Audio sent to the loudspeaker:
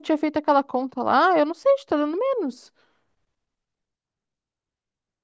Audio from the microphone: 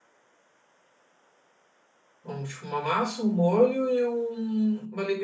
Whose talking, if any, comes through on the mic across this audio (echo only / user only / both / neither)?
user only